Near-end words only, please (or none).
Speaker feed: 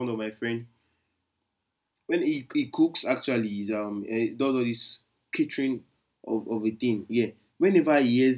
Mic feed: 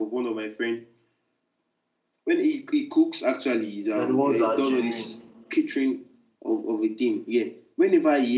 They're the ones that are genuine.